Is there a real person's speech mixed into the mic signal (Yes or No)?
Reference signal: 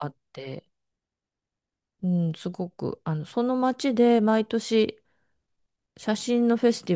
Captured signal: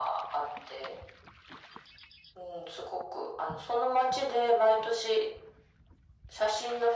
No